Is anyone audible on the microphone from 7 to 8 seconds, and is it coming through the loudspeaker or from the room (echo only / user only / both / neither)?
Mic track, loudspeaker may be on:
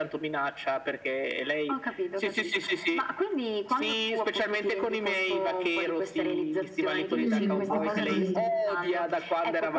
both